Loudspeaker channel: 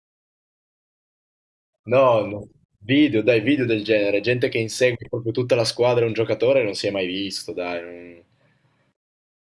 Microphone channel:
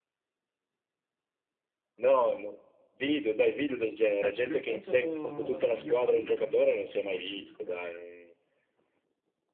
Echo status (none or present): present